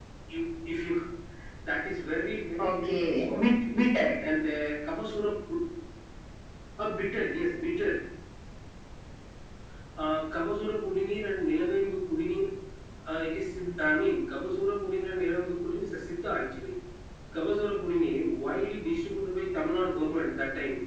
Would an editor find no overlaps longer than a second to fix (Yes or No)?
No